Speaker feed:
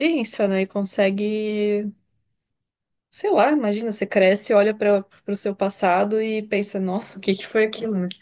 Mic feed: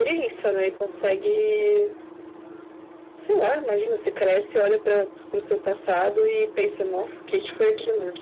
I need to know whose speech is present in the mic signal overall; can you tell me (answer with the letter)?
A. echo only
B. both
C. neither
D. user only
A